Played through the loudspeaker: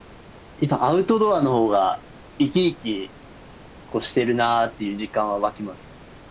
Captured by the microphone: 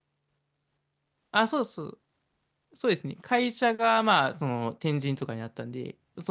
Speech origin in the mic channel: user only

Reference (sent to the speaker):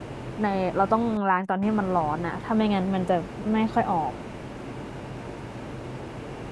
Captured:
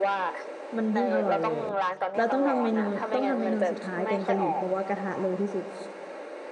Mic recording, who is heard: both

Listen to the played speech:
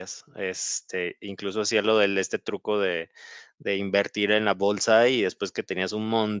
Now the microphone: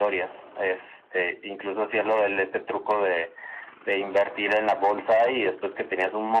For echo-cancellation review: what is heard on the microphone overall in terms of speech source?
echo only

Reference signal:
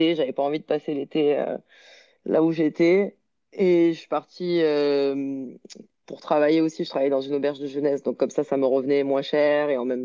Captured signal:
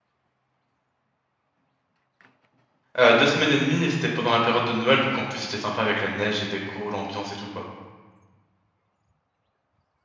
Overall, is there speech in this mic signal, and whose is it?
user only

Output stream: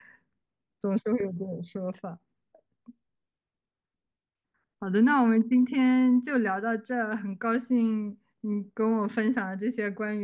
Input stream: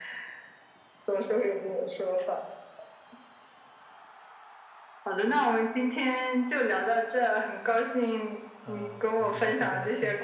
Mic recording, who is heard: both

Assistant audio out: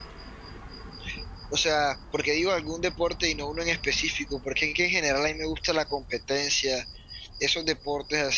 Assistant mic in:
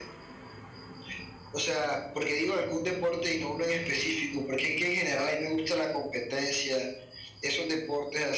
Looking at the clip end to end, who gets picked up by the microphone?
echo only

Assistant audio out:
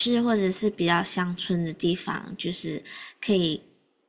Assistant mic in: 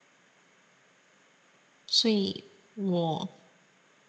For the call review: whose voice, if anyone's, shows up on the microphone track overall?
user only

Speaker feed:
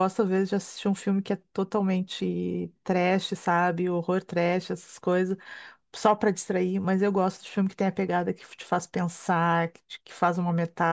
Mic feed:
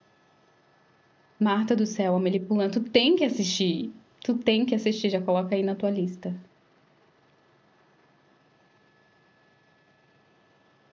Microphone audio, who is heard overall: user only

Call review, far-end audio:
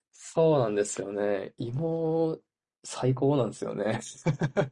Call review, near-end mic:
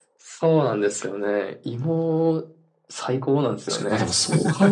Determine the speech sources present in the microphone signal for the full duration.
both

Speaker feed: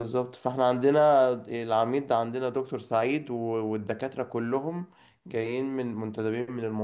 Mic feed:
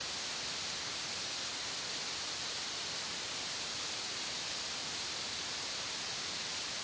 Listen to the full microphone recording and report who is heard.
neither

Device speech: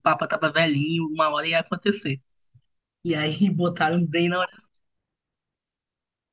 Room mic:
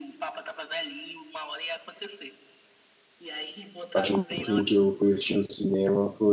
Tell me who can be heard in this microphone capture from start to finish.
both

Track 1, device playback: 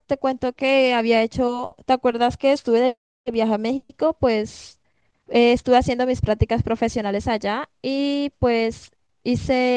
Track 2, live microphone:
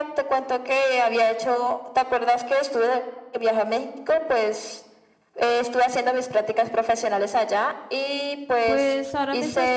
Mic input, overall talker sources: both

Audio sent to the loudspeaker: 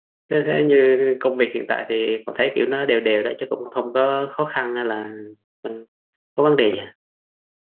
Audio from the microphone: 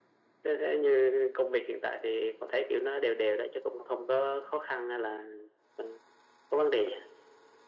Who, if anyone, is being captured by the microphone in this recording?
echo only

